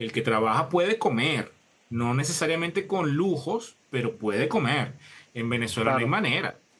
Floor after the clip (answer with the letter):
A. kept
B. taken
A